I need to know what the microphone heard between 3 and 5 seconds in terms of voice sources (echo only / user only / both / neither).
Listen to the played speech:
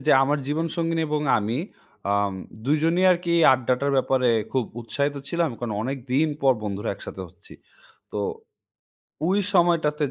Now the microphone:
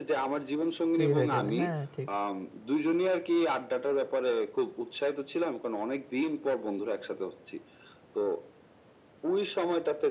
echo only